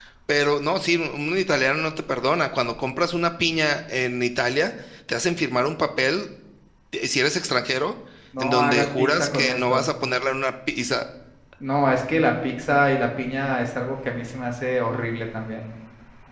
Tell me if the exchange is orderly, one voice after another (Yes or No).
No